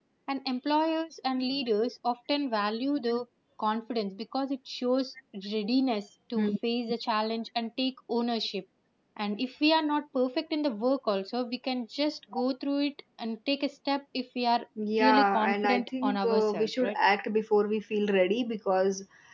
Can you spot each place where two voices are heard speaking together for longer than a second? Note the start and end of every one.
15.0-16.9

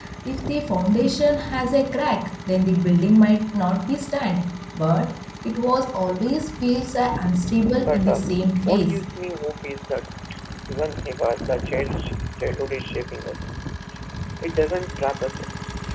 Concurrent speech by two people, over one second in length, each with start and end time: 7.7-9.0

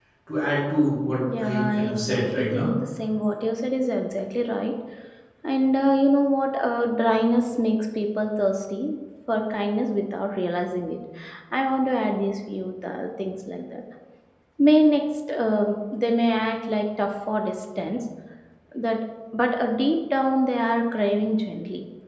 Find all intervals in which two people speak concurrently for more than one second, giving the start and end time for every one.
1.4-2.7

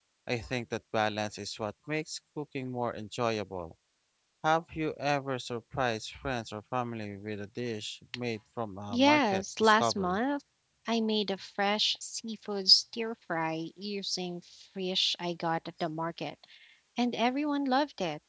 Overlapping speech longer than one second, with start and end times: 8.9-10.2

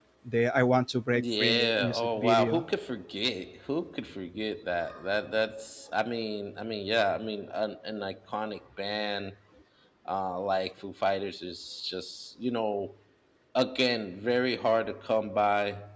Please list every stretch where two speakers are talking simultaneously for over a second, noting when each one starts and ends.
1.1-2.6

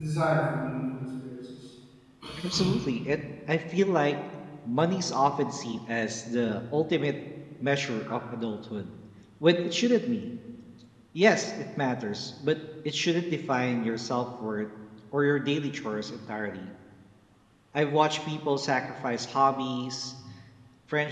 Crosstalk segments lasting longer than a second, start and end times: none

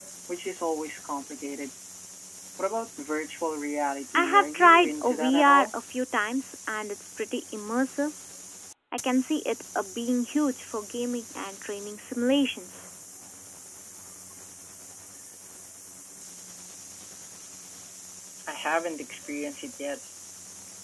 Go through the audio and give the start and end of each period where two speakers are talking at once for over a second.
4.2-5.7

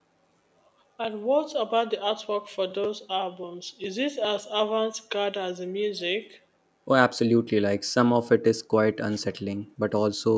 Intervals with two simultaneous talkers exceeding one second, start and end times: none

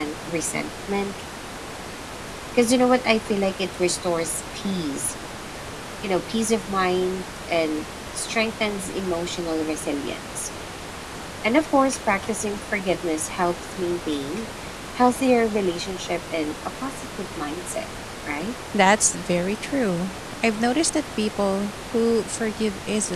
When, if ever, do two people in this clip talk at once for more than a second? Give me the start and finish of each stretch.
none

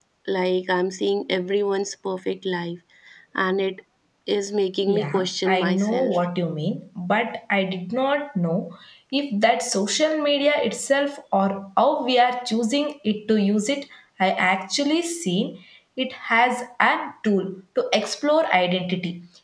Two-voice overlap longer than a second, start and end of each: 4.9-6.1

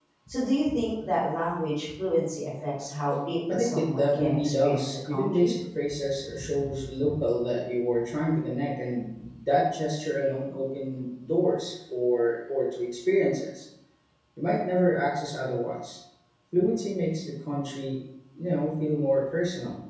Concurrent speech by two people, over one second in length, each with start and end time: 3.5-5.5

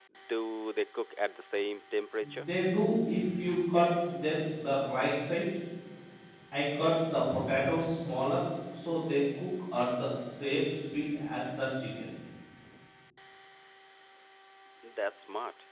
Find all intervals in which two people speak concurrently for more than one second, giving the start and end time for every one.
none

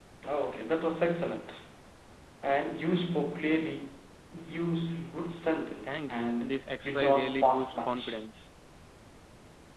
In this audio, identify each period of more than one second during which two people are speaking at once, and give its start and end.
5.8-8.2

